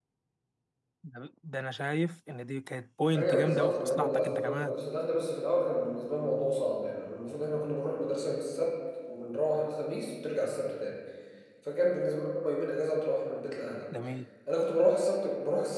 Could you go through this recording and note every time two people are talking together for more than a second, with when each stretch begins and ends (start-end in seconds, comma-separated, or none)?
3.1-4.7